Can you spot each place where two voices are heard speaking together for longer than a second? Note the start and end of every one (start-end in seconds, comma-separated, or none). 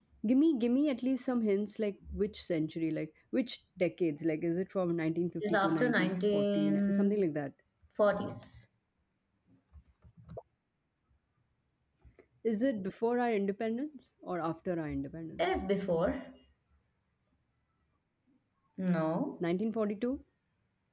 5.4-7.2